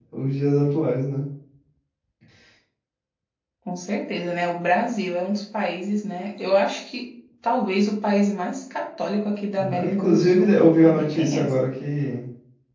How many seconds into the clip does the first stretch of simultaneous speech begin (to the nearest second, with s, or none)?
10 s